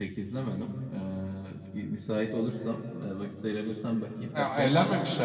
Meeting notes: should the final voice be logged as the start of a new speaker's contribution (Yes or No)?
Yes